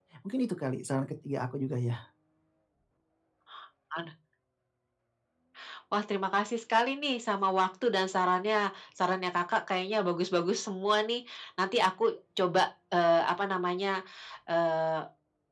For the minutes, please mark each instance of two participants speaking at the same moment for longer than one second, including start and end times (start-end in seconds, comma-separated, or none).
none